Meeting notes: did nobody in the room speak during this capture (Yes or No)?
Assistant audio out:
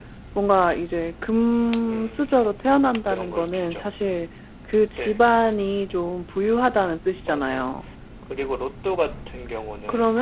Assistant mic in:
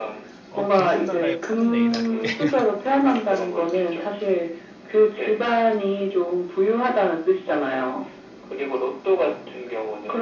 No